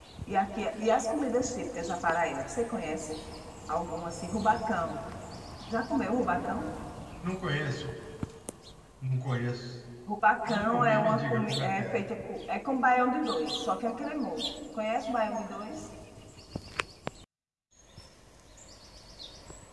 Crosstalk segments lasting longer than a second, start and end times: 10.5-12.0

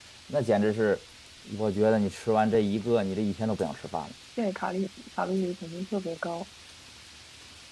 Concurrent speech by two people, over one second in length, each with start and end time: none

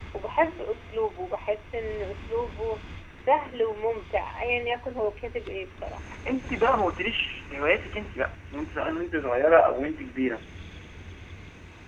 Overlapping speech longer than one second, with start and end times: none

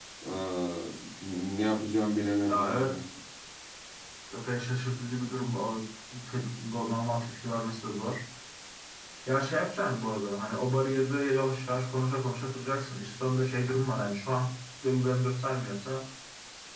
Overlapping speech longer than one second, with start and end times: none

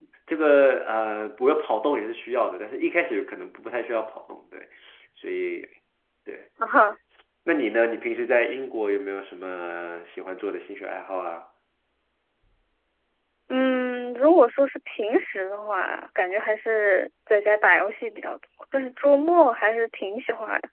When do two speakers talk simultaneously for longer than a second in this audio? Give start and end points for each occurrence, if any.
none

